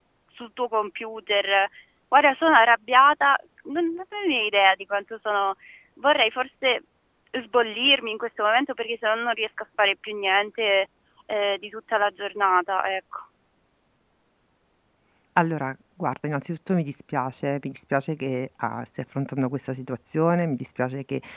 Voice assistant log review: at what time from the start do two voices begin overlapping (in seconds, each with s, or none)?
none